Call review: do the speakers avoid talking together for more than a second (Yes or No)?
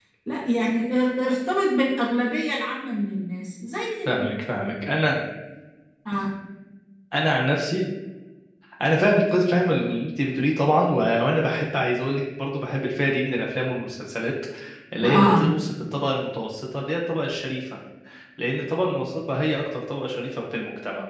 Yes